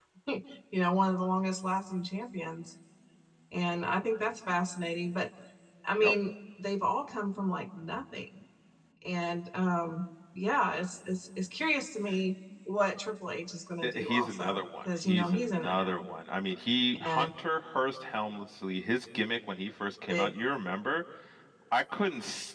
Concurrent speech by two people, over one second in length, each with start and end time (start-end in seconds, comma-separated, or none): 13.8-16.0